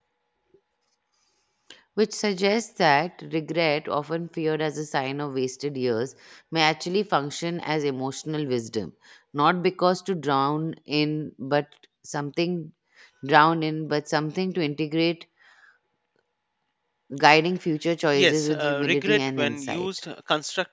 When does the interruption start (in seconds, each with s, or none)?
18.1 s